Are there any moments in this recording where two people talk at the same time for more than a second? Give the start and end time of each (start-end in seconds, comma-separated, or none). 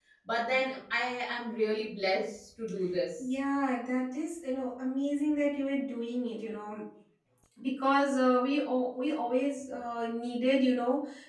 none